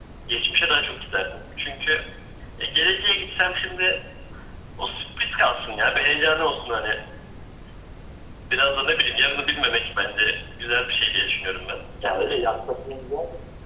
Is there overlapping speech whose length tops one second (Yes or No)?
No